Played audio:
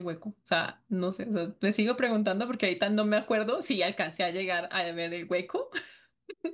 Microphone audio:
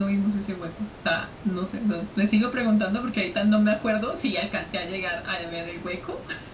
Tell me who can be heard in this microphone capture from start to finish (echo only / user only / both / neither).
echo only